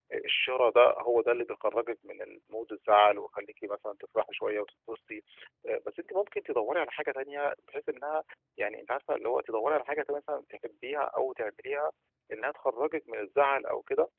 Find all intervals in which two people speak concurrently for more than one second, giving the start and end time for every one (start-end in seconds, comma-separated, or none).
none